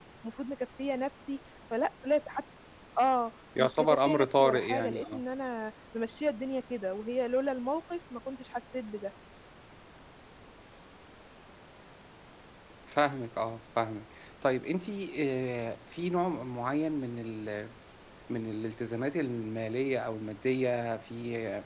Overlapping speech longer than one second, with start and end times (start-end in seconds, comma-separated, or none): 3.6-5.2